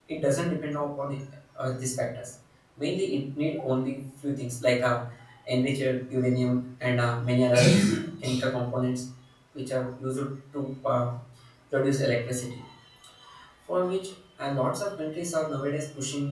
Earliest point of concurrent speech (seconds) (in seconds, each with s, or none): none